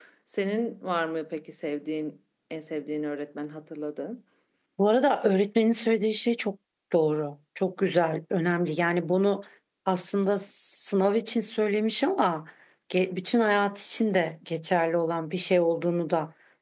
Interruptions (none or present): none